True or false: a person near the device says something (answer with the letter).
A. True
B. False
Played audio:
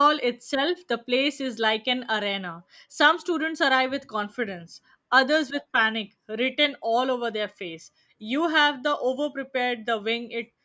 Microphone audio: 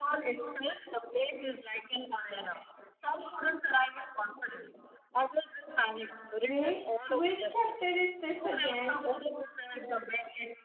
A